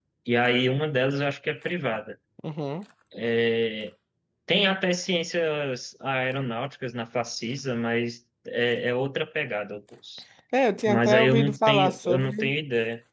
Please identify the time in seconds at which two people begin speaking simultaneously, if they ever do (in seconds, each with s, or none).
10.9 s